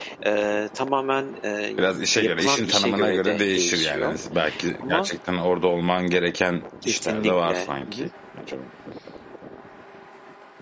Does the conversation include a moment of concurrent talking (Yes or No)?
Yes